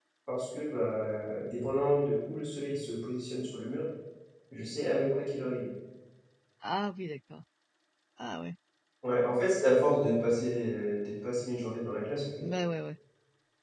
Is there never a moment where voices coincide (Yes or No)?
Yes